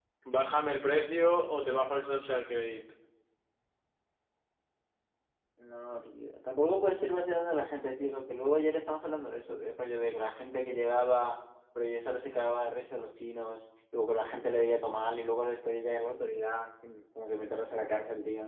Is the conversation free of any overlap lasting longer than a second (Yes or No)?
Yes